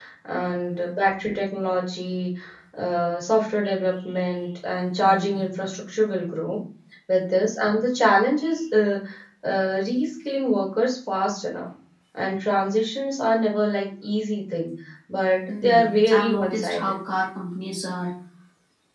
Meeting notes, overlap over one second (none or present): present